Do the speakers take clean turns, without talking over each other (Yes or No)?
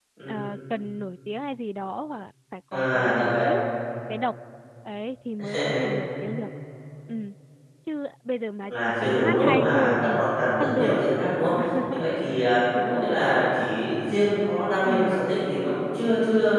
No